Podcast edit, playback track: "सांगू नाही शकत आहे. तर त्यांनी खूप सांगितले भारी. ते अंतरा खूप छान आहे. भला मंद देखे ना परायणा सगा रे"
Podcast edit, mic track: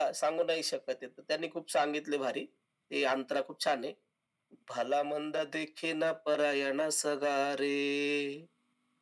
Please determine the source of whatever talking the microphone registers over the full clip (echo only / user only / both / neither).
echo only